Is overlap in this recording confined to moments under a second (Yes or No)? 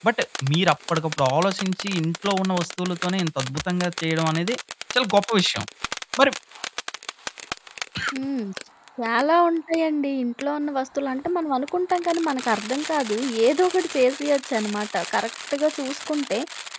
Yes